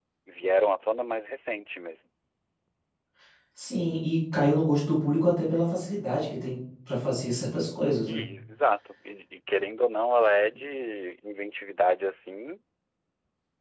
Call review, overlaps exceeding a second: none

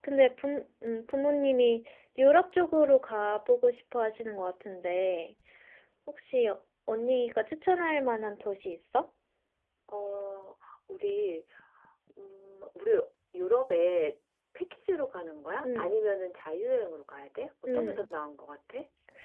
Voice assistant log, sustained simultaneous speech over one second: none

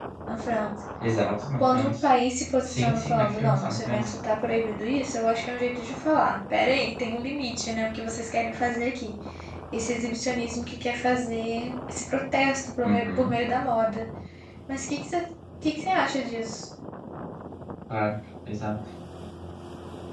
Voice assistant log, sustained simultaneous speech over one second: present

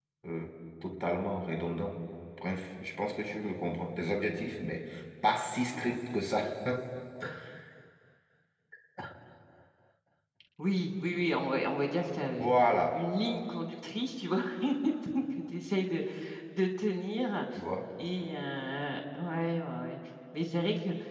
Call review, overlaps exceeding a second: none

